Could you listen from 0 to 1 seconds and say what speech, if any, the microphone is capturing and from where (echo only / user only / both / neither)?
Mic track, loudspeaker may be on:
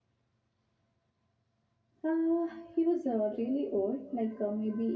neither